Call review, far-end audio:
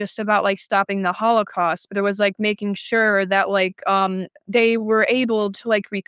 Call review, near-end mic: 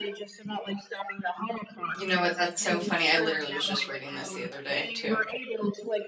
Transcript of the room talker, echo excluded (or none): you know what? That's so funny. I literally was just reading this the other day too.